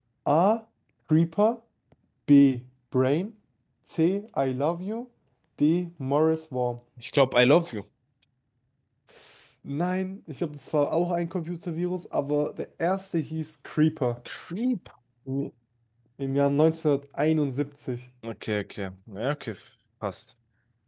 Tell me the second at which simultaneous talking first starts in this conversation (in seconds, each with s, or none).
none